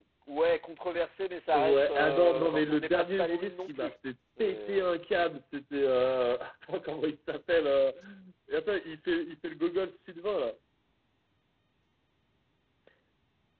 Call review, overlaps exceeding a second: present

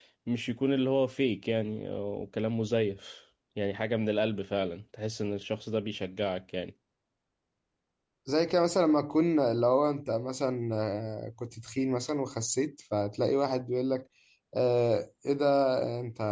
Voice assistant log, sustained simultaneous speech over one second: none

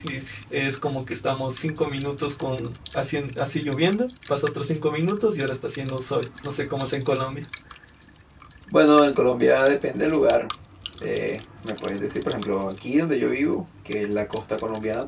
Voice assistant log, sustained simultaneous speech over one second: none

